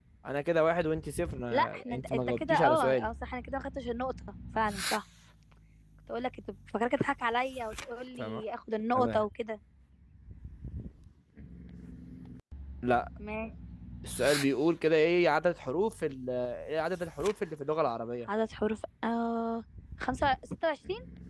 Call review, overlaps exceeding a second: present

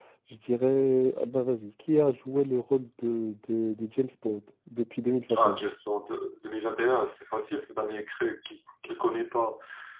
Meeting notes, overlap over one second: none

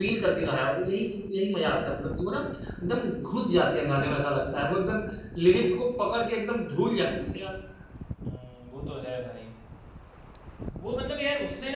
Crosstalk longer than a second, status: none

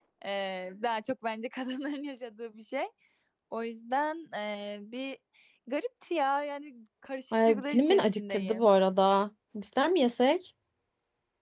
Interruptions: present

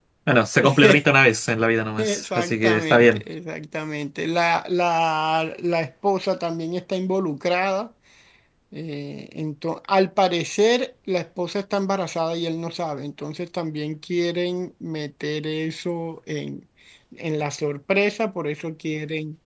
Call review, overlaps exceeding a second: present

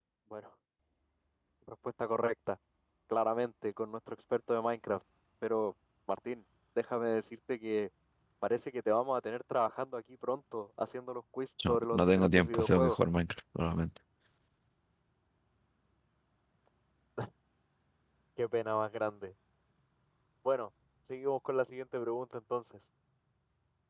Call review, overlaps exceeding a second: present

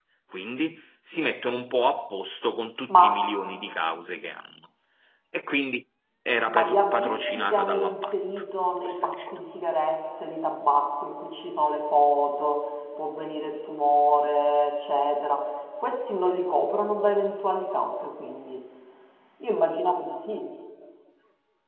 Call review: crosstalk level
present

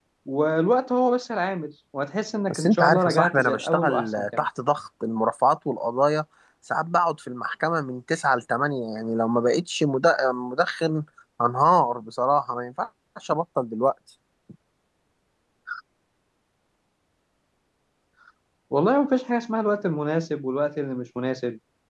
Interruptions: present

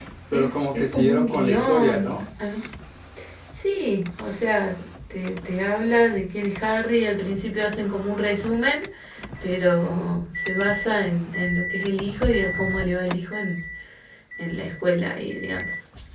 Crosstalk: present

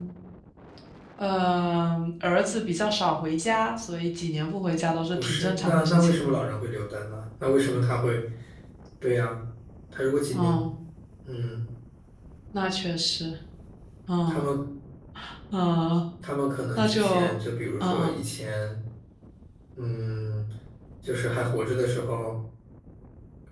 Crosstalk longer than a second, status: present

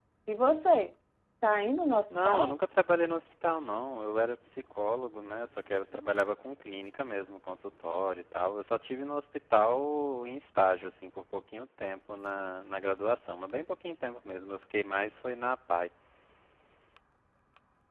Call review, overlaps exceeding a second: none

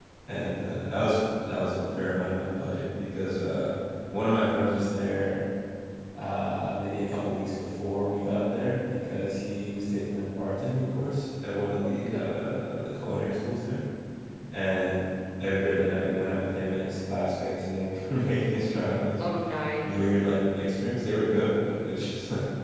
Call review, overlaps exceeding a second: none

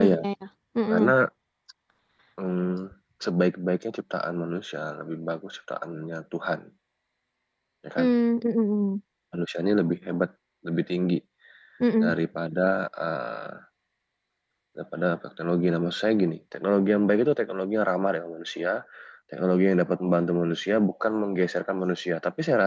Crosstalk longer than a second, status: none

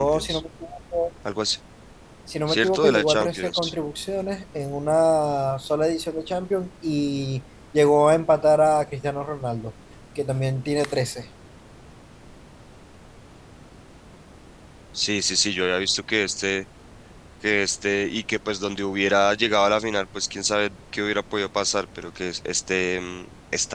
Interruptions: present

